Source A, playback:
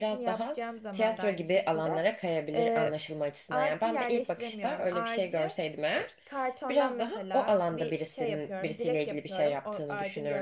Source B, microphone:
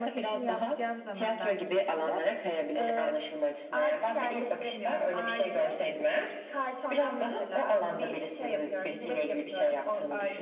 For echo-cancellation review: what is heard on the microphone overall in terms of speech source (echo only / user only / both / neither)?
echo only